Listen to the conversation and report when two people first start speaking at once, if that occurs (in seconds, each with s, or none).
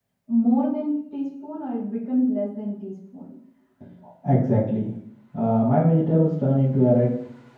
none